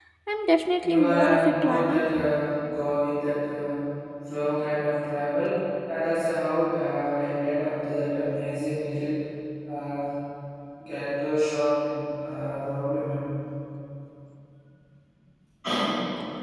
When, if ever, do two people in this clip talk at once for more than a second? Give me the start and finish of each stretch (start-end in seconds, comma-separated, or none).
0.8-2.0